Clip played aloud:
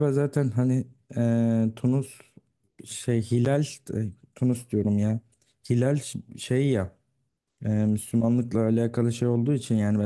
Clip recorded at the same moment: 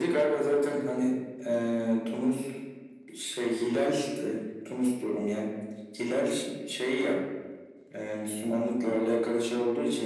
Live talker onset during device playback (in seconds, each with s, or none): none